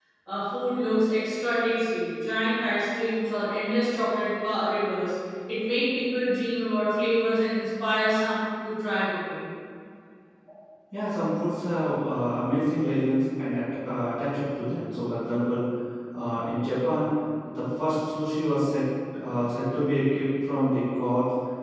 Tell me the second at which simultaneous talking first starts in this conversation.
none

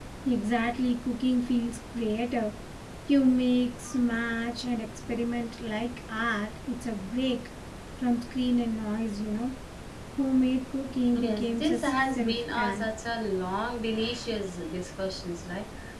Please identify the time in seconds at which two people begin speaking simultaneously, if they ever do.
11.1 s

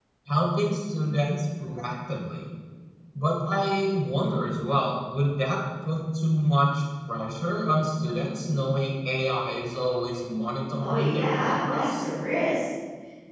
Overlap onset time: 10.8 s

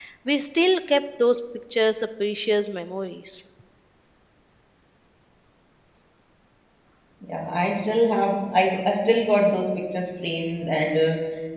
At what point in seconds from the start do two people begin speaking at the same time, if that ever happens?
none

